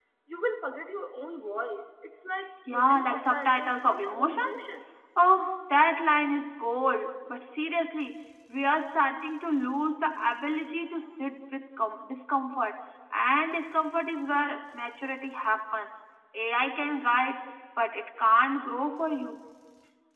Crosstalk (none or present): present